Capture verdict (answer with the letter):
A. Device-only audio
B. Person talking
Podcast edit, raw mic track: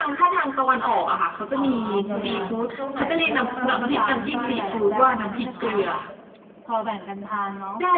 B